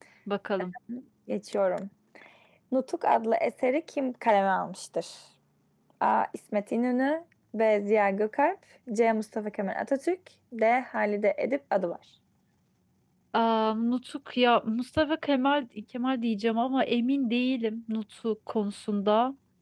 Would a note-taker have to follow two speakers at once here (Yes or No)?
No